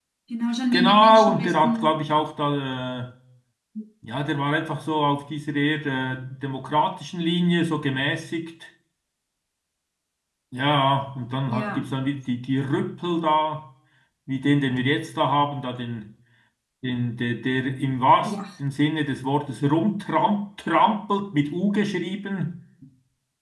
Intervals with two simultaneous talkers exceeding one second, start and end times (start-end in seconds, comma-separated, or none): 0.7-2.0